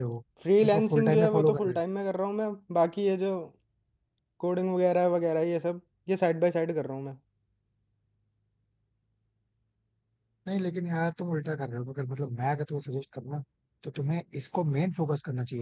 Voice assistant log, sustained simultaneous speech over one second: present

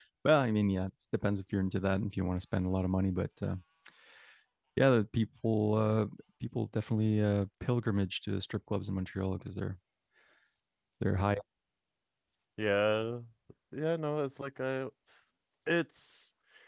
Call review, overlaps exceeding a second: none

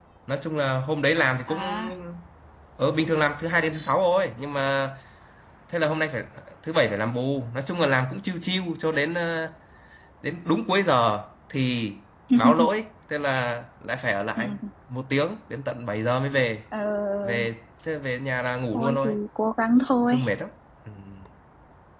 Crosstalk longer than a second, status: none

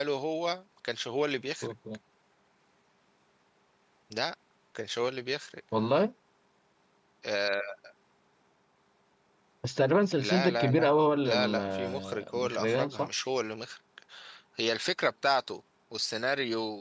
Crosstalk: present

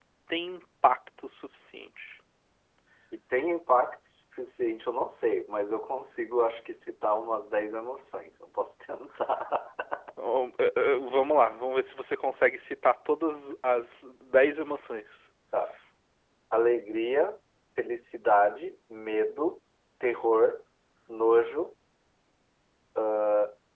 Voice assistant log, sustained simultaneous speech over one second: none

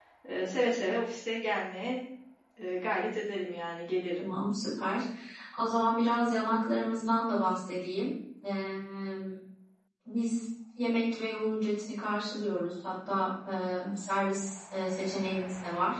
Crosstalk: none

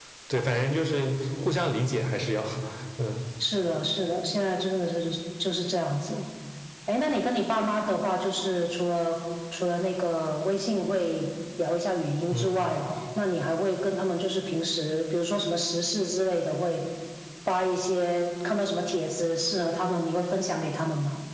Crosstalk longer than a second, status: none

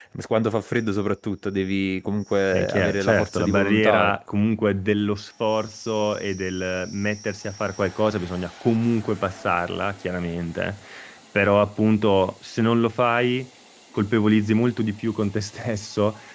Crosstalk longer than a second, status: present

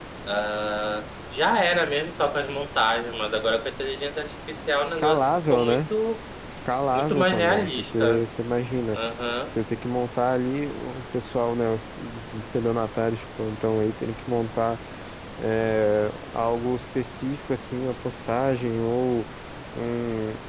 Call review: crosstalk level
present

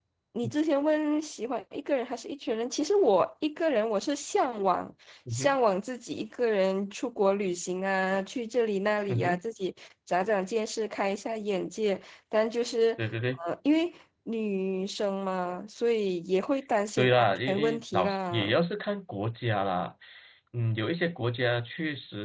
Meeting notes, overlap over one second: present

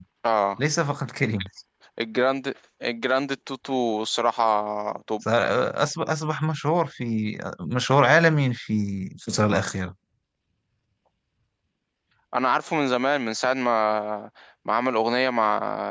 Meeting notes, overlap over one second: none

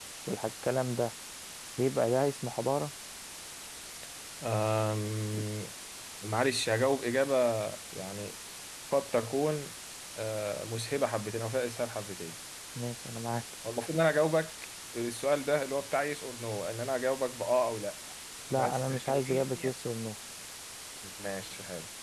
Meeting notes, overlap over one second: present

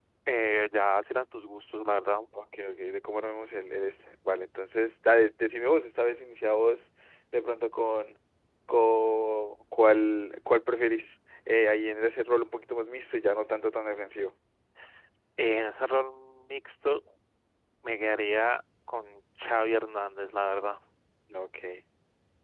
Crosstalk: none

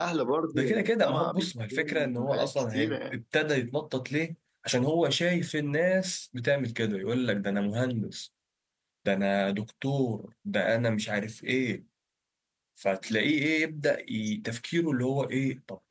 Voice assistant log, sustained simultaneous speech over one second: present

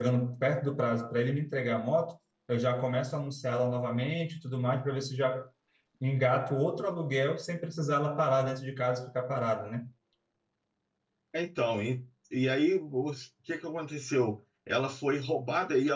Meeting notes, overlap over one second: none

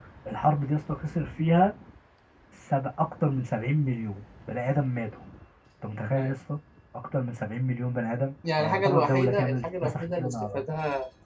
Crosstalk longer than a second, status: present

